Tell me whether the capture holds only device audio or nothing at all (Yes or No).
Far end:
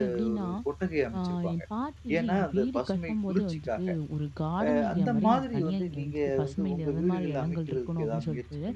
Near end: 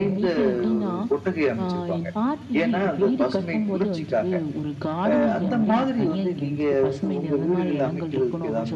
Yes